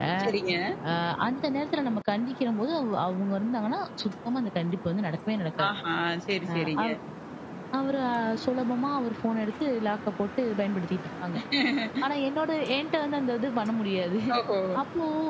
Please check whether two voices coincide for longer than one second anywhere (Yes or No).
No